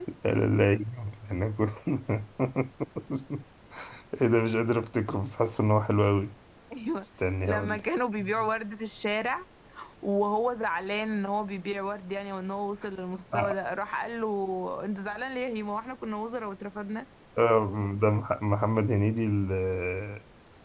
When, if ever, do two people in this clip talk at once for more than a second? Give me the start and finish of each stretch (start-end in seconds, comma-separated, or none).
none